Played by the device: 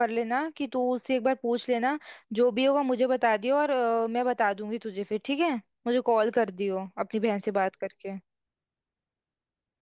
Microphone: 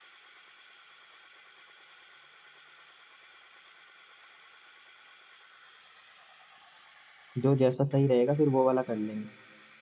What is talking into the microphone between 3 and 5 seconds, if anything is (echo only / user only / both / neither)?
neither